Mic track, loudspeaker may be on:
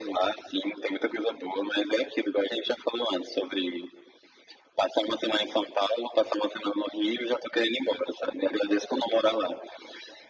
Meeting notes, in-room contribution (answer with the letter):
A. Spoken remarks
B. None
B